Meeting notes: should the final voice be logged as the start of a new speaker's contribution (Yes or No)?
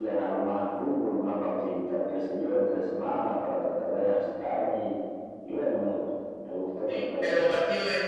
Yes